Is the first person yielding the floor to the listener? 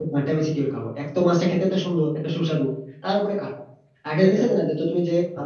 No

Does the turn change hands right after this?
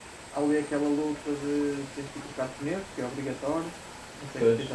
No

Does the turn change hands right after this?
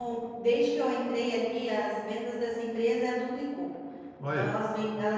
No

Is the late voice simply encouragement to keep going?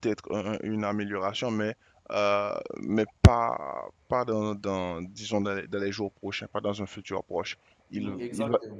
Yes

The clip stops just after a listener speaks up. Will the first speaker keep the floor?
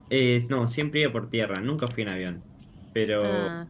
Yes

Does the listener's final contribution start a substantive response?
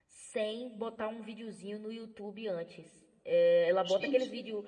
No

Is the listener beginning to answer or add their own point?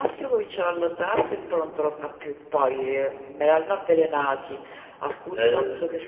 No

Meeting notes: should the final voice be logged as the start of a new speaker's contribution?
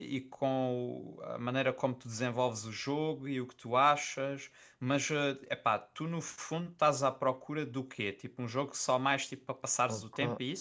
Yes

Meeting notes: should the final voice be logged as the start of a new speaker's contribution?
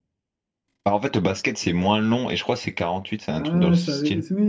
Yes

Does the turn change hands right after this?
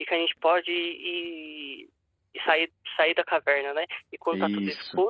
No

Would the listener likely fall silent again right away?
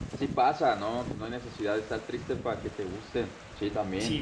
Yes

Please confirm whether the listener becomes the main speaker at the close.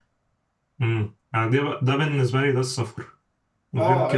Yes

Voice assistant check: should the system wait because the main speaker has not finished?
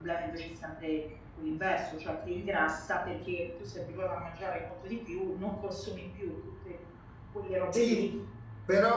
No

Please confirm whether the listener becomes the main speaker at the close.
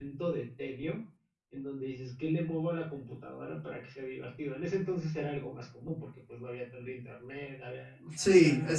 Yes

